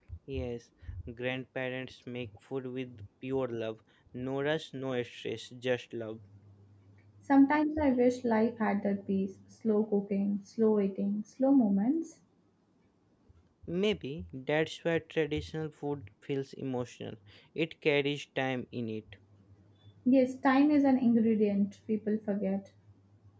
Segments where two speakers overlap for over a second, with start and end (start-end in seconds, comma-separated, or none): none